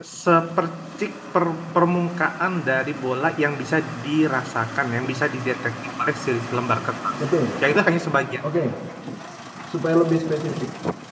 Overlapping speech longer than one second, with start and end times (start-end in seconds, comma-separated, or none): none